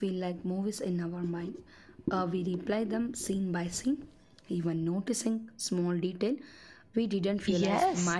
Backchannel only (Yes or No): No